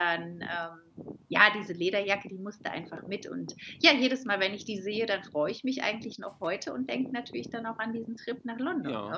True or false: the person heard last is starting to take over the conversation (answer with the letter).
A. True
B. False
A